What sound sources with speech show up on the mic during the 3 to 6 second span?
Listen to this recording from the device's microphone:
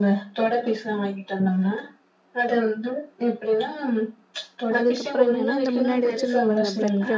both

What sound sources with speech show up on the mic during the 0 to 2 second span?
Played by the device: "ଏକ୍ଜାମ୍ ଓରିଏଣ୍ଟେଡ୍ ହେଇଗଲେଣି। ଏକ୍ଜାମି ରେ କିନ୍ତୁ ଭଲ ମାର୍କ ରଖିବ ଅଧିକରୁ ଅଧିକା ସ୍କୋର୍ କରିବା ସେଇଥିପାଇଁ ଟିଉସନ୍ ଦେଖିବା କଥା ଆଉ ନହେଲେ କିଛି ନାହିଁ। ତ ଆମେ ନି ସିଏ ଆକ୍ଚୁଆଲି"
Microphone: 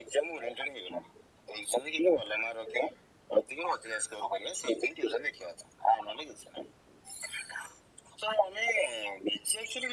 echo only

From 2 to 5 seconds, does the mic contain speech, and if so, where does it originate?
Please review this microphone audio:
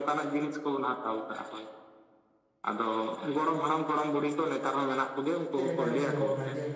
echo only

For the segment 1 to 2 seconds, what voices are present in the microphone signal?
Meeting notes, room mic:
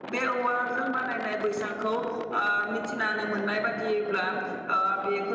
user only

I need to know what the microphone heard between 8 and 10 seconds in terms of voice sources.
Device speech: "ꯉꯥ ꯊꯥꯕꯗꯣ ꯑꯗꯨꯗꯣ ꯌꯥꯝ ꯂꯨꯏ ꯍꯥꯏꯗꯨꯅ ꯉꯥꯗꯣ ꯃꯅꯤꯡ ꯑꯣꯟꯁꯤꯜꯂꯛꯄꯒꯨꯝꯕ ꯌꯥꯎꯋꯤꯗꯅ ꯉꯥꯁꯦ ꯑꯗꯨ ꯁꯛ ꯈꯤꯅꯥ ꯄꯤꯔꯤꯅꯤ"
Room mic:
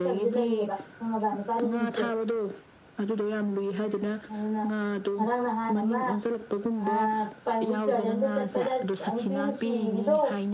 both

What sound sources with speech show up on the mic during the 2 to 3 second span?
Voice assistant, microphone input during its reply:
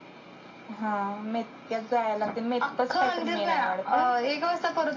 echo only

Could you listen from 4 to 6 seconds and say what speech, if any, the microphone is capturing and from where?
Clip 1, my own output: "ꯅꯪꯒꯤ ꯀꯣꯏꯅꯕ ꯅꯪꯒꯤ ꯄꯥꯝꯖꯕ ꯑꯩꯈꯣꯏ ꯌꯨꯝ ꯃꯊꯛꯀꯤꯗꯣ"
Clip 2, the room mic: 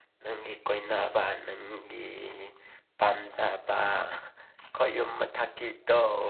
echo only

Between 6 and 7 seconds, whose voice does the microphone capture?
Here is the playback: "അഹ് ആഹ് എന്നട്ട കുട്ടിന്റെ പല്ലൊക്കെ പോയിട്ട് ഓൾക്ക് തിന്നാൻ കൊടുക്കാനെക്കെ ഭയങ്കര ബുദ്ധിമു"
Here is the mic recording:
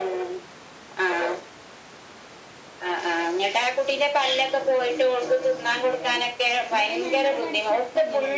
both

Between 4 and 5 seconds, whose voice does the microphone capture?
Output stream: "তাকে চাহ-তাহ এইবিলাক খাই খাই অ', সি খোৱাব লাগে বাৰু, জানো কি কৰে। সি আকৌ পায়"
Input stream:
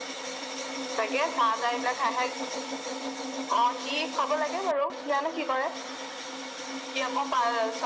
echo only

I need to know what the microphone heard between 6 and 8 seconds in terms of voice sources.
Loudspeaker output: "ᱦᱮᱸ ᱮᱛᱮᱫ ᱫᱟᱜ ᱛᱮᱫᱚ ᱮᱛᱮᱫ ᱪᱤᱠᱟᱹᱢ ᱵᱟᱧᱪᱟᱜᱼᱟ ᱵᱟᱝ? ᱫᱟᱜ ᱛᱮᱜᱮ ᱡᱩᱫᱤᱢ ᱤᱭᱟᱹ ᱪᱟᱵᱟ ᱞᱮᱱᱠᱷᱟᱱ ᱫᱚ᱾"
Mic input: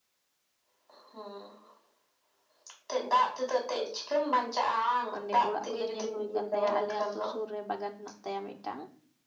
both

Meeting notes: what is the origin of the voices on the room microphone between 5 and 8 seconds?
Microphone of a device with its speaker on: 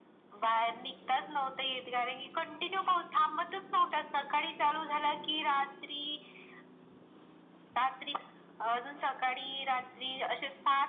echo only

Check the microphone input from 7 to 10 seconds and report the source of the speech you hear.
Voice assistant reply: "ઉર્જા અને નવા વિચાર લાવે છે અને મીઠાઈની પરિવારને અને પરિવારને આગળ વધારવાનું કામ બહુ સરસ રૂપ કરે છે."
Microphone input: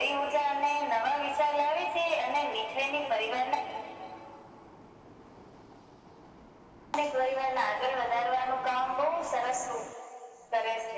echo only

